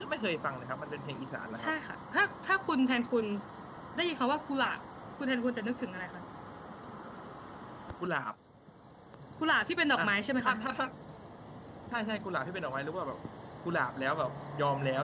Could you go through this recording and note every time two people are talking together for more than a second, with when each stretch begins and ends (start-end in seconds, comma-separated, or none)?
none